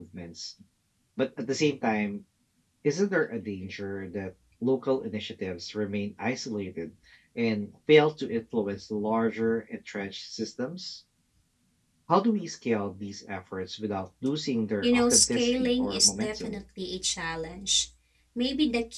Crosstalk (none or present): present